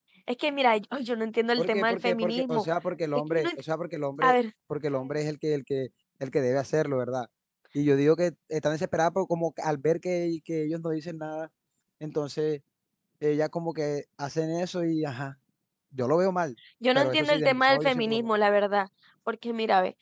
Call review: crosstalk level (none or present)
present